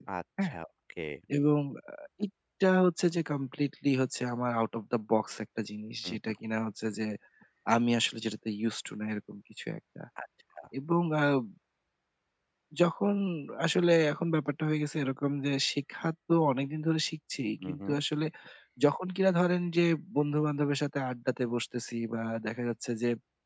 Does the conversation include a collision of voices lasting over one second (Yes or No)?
No